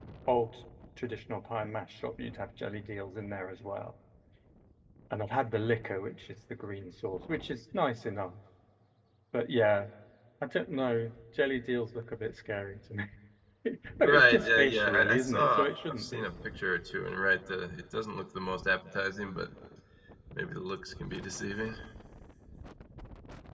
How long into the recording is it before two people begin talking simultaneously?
14 s

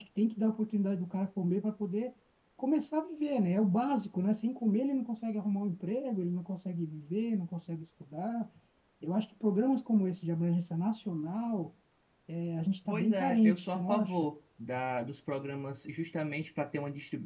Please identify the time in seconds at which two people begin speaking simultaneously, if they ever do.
13 s

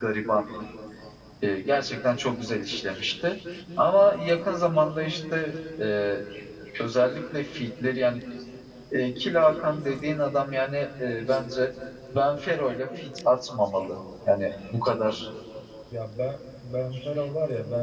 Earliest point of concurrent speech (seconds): none

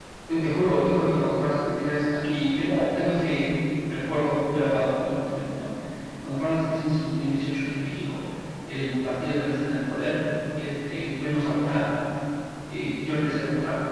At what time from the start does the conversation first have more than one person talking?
none

